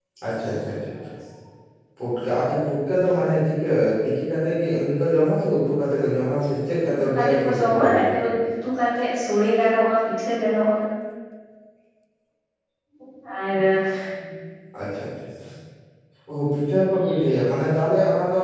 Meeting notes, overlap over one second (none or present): present